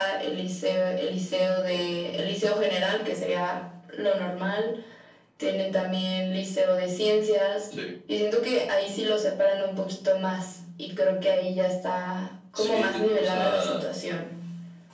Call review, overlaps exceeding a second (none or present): present